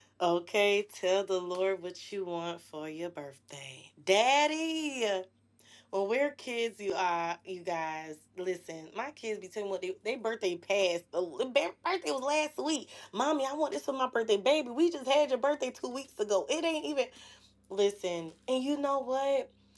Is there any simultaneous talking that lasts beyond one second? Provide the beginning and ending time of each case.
none

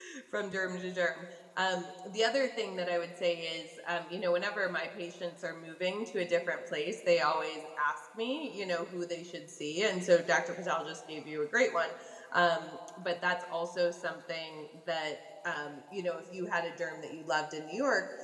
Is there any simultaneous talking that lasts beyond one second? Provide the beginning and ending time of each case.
none

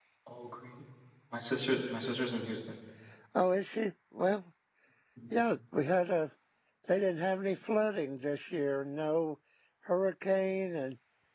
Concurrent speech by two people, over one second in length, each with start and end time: none

